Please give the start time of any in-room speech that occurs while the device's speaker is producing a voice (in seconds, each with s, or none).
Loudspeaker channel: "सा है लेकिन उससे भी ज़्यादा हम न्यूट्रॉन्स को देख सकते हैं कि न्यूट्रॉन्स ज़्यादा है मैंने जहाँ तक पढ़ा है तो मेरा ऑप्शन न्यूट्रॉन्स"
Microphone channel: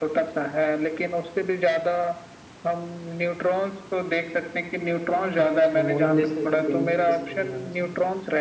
5.4 s